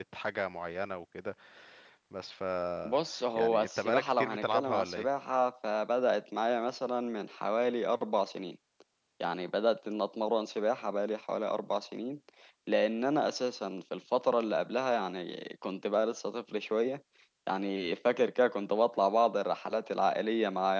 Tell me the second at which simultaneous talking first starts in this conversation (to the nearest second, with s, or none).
3 s